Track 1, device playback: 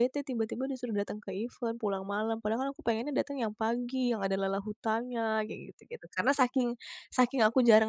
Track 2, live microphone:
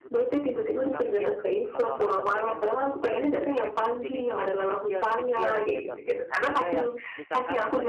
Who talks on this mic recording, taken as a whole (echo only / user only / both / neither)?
both